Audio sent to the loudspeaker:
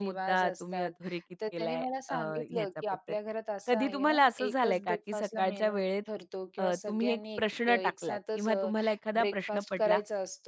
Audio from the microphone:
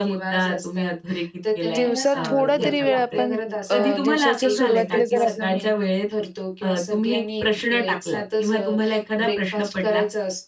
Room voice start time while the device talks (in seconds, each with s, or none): 1.8 s